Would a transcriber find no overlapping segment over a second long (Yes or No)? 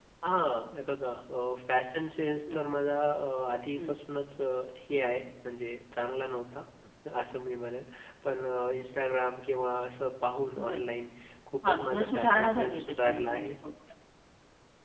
No